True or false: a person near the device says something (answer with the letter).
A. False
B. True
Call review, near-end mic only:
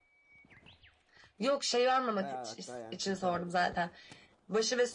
B